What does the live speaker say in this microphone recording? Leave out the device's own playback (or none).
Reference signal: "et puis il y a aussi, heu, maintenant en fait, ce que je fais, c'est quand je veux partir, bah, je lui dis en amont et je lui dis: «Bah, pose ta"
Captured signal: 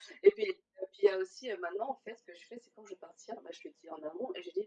none